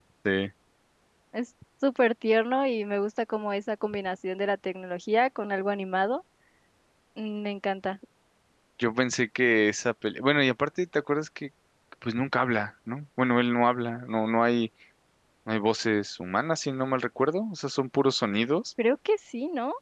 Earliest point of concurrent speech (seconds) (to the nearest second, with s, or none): none